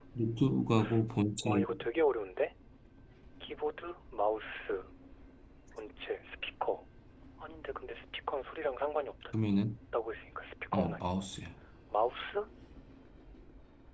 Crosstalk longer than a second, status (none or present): none